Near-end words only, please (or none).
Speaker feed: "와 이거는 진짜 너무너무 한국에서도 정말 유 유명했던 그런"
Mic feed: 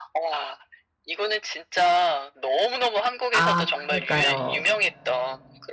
아 그니까요.